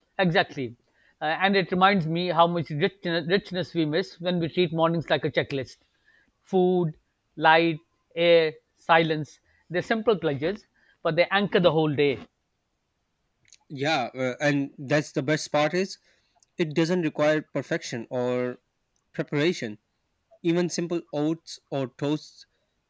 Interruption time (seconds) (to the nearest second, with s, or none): none